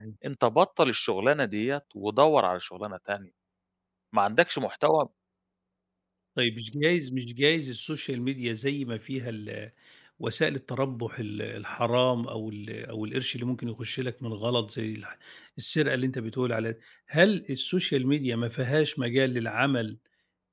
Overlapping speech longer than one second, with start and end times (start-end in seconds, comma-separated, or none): none